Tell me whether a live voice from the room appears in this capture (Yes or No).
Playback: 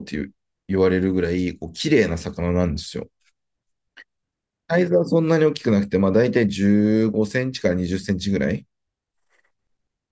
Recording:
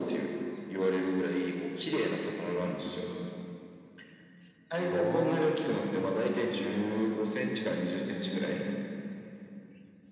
Yes